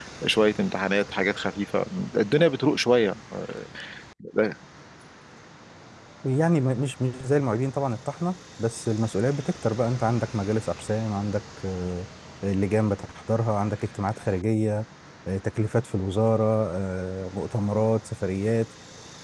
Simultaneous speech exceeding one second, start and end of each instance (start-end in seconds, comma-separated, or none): none